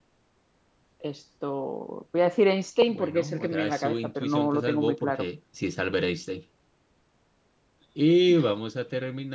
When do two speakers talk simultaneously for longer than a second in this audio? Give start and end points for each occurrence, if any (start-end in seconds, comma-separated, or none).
2.9-5.3